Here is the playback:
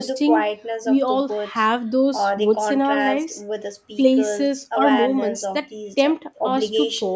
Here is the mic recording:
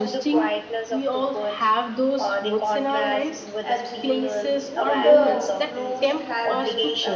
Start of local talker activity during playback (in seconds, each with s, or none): 2.8 s